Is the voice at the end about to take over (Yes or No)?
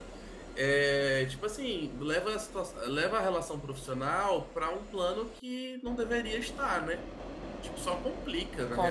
Yes